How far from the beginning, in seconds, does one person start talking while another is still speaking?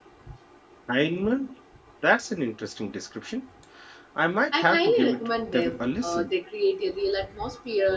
4.5 s

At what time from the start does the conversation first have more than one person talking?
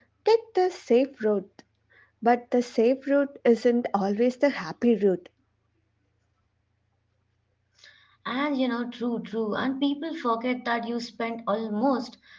none

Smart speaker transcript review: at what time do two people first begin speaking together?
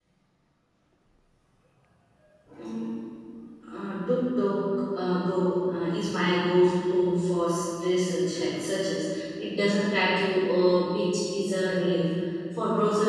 none

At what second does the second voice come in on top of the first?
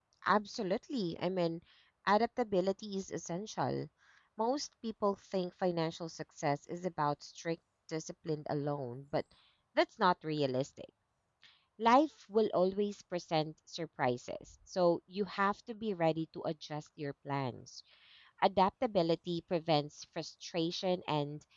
none

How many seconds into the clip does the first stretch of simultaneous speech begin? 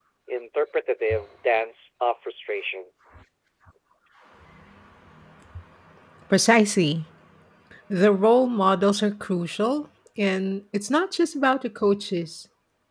none

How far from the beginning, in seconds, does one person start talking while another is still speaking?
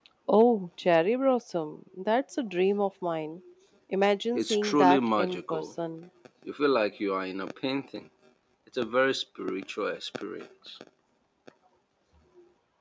4.3 s

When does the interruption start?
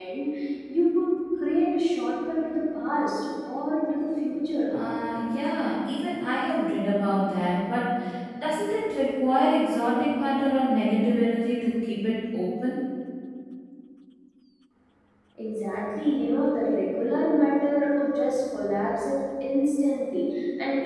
none

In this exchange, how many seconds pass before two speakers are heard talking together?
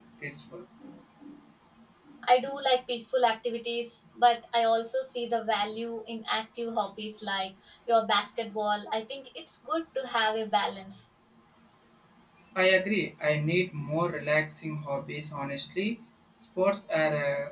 none

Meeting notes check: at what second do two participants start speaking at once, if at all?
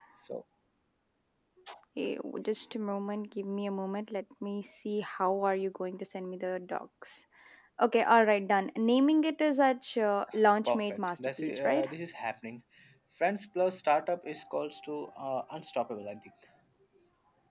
10.7 s

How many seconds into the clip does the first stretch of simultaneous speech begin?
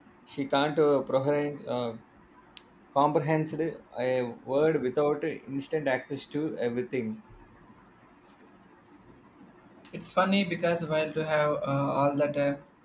none

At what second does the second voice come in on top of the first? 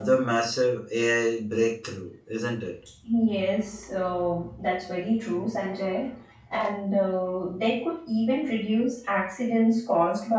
none

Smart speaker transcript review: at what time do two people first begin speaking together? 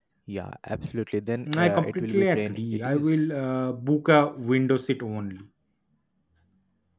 1.5 s

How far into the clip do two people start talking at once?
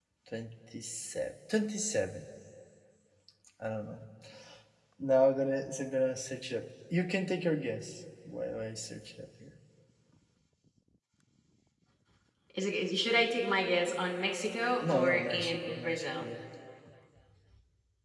14.8 s

